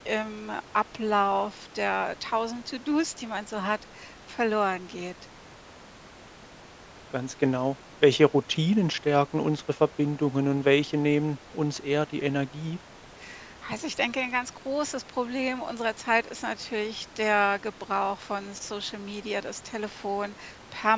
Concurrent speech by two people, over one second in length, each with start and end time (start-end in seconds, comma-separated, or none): none